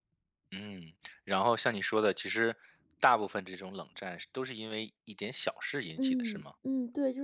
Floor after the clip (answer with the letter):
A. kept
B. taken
B